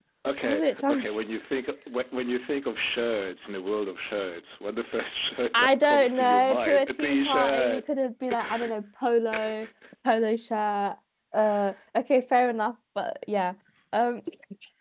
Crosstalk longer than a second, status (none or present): present